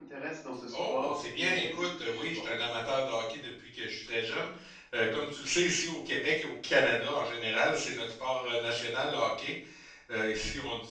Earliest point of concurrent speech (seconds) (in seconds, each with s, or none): 0.7 s